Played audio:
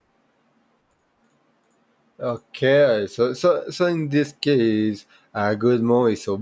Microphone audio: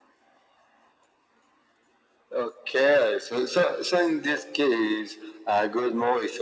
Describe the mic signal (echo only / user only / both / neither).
echo only